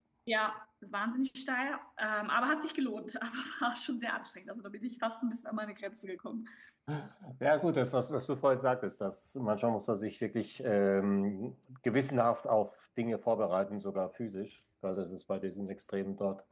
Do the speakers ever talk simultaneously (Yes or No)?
No